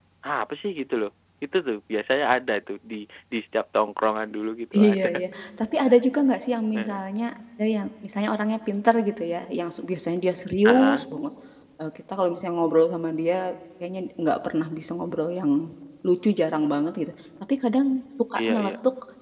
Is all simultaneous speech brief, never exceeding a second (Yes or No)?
Yes